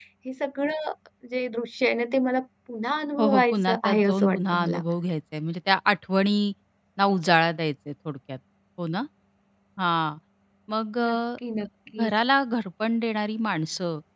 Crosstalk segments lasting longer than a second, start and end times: 3.2-4.8

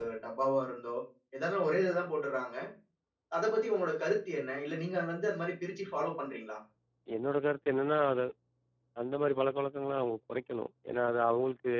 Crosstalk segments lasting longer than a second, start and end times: none

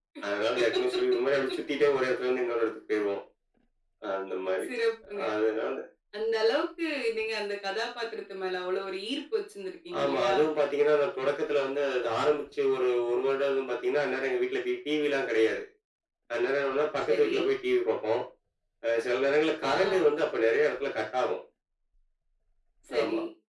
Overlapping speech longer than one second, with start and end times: none

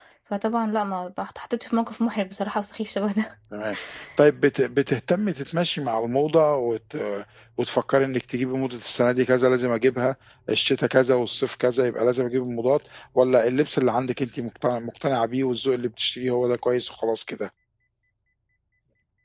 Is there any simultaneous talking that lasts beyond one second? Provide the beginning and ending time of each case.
none

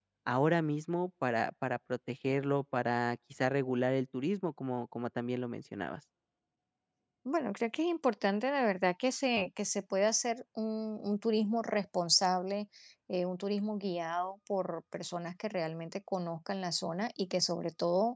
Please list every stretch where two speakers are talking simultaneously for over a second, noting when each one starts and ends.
none

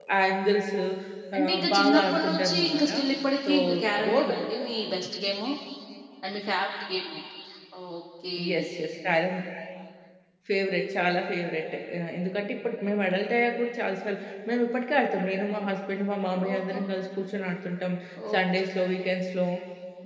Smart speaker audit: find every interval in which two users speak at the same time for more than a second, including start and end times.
1.4-2.9

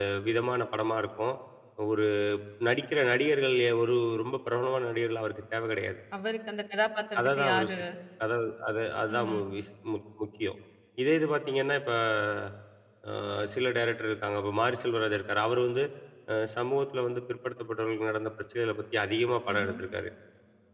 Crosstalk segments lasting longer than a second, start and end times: none

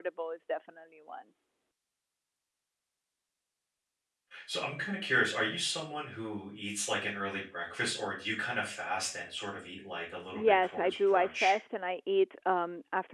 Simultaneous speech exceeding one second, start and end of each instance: 10.3-11.5

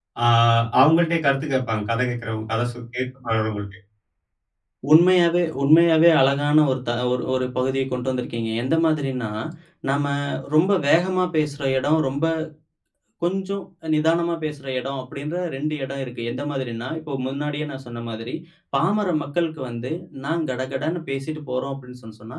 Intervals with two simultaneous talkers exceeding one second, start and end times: none

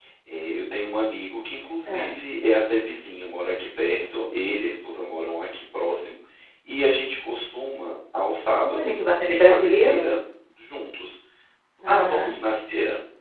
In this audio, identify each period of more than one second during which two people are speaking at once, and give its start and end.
8.8-10.0

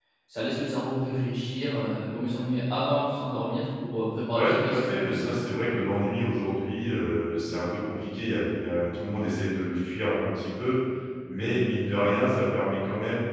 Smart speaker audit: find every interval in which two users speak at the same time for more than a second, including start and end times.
4.3-5.6

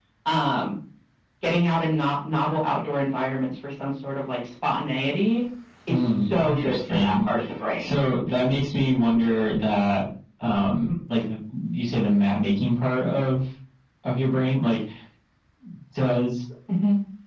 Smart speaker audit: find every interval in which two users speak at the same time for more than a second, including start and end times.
5.9-7.3

